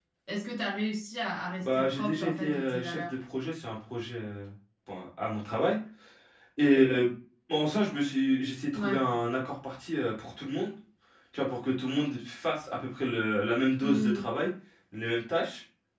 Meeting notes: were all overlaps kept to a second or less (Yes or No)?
No